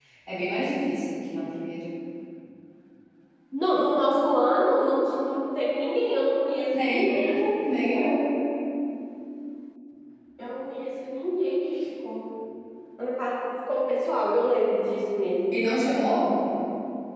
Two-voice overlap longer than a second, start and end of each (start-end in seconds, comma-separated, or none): 6.7-8.2